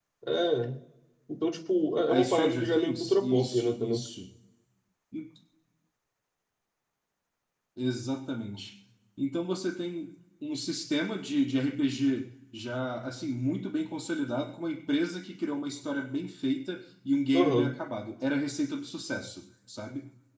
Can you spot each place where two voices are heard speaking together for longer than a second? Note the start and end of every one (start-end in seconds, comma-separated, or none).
2.1-4.0